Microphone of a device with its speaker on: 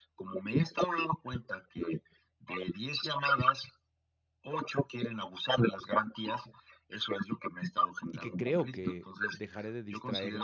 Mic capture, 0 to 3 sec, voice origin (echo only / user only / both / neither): echo only